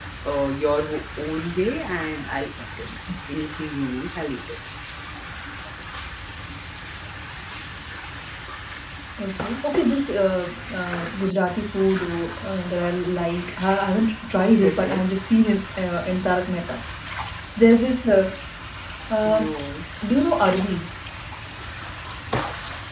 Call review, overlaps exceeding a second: none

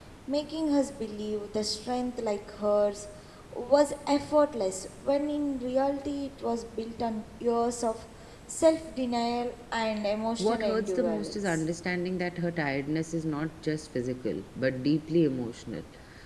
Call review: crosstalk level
present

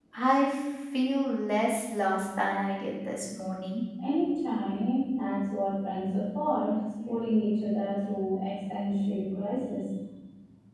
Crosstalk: none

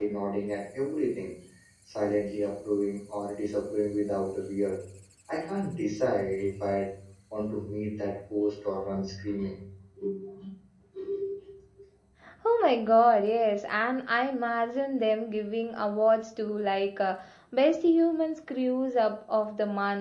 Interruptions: none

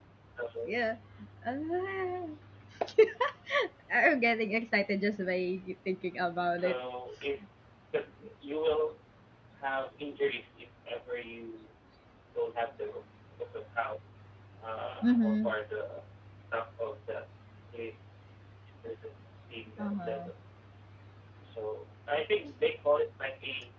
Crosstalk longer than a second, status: none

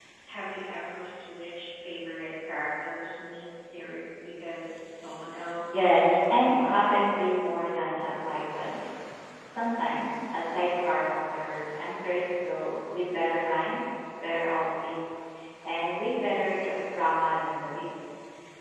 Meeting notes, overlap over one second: present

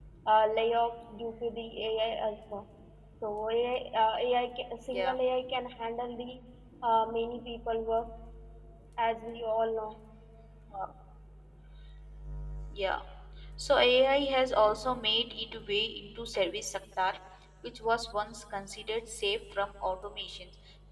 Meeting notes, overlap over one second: none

